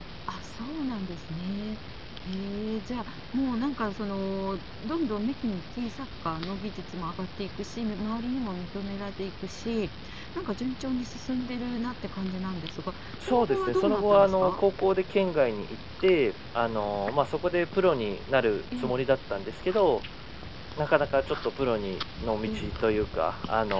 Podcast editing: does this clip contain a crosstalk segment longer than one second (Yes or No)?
Yes